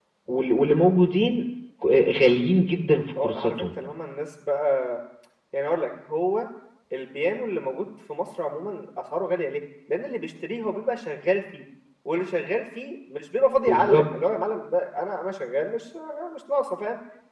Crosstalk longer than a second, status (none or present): none